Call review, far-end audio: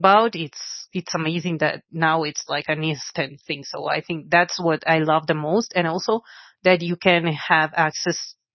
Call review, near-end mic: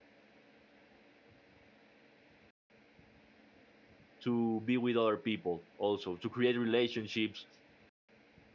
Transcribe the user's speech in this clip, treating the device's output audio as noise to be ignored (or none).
to be with other people, also to create relationships